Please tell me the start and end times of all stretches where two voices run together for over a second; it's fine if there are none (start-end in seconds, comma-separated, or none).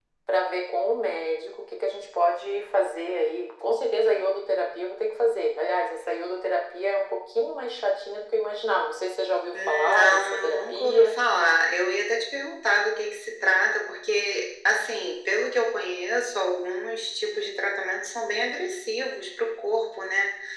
9.7-11.2